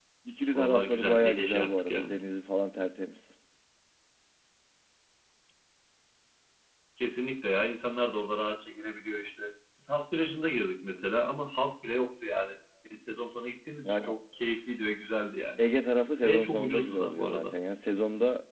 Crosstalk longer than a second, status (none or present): present